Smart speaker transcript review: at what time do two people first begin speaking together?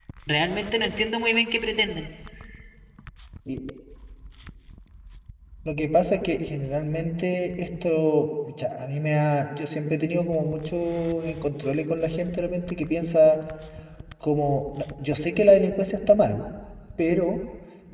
none

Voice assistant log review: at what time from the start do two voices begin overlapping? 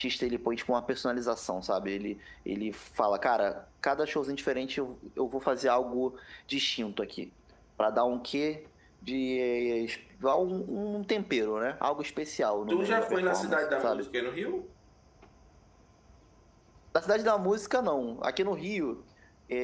12.7 s

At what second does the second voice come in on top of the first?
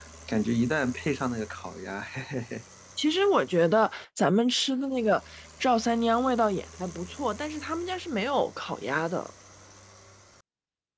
none

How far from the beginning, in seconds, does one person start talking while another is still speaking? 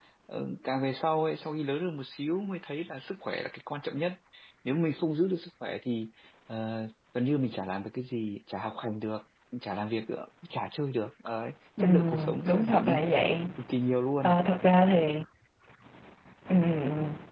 11.8 s

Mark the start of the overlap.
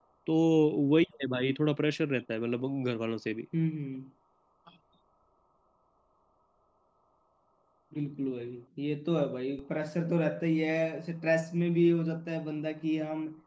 none

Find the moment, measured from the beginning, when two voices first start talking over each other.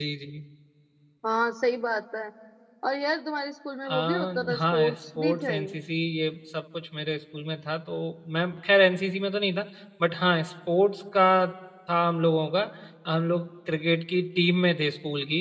3.9 s

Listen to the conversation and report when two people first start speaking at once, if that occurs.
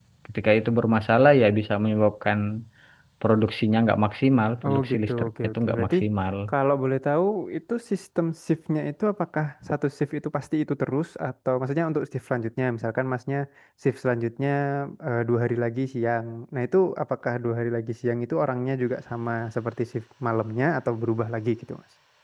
4.6 s

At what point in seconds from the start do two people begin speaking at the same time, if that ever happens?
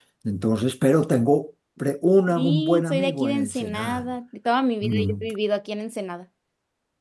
2.3 s

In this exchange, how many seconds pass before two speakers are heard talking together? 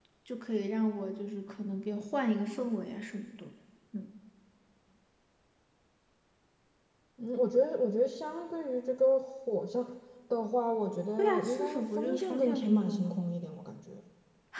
11.2 s

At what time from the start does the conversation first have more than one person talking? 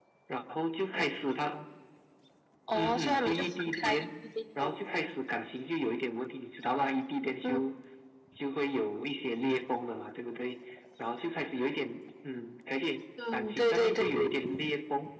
2.7 s

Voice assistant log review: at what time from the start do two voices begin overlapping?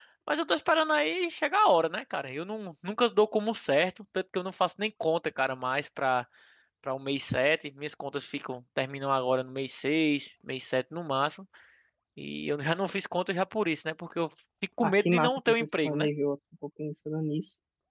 14.8 s

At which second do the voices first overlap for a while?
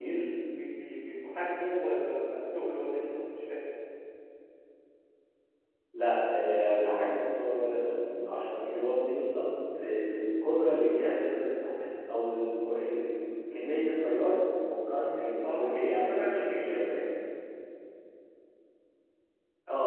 15.4 s

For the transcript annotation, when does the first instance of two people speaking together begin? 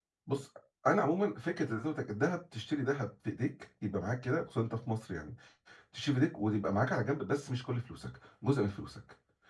none

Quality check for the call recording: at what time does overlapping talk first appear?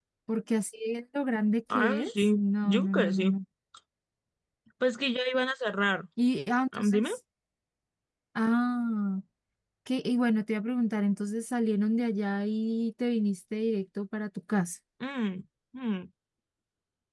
1.7 s

